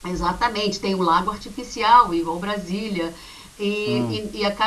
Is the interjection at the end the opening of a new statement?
No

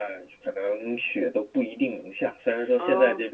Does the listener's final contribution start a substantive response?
No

